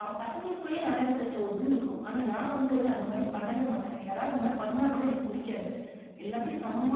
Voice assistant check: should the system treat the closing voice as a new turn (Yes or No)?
No